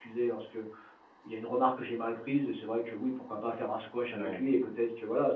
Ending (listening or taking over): listening